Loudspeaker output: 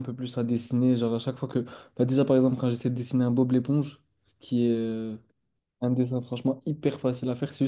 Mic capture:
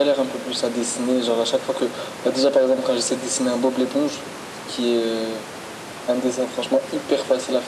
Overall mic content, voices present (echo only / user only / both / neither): echo only